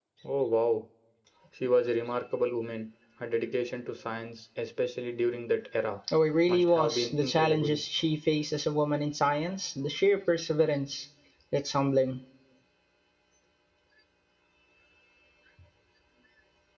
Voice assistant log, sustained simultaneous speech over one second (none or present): present